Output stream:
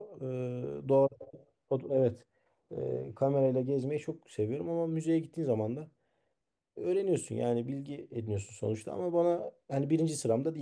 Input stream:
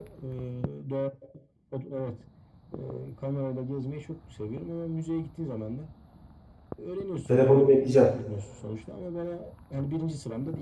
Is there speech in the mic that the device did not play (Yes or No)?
Yes